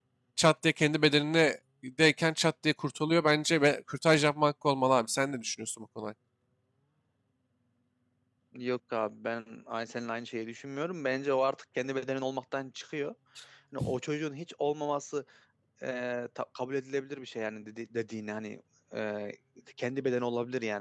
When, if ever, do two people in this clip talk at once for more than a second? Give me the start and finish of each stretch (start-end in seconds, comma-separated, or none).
none